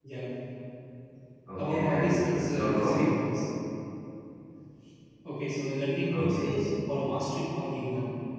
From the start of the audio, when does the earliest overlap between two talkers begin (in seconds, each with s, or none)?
1.6 s